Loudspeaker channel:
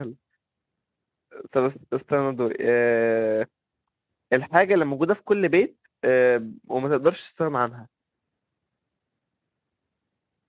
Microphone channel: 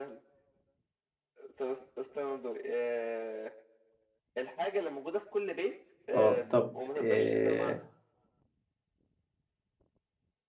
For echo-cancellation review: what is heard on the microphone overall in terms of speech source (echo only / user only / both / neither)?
both